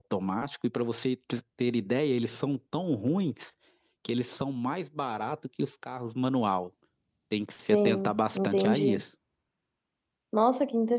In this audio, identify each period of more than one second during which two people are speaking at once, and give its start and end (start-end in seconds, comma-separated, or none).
7.7-9.0